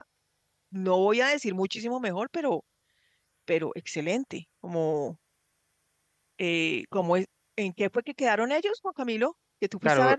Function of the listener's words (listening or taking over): taking over